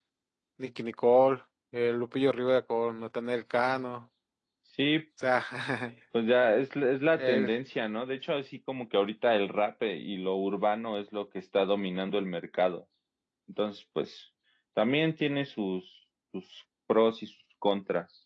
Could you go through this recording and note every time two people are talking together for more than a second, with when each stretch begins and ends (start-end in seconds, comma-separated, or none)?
none